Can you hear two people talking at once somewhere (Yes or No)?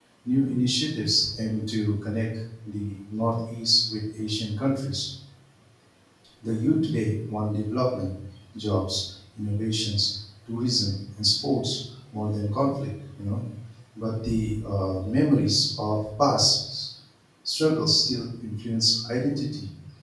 No